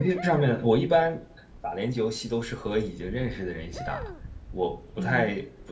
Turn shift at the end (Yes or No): No